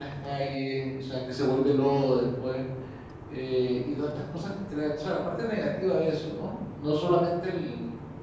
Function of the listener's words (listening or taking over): listening